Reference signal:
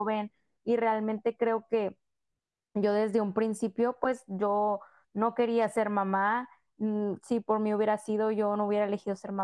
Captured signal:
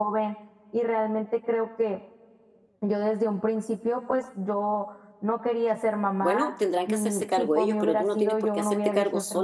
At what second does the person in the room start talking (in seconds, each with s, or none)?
6.2 s